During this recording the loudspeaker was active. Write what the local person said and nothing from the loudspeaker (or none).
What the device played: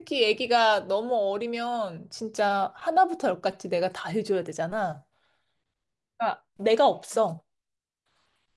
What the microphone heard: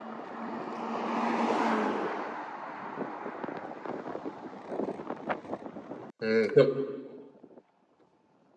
음, 그럼,